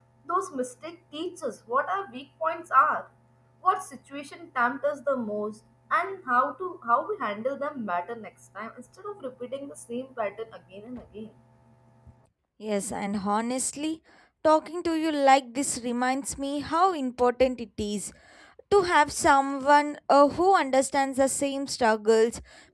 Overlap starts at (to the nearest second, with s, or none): none